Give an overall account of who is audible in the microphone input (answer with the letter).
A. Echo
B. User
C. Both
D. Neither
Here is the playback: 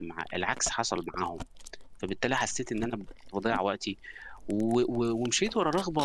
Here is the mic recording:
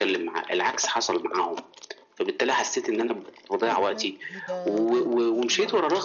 C